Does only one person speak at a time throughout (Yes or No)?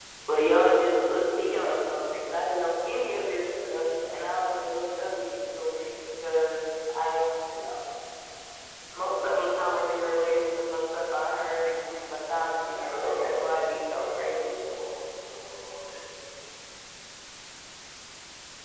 No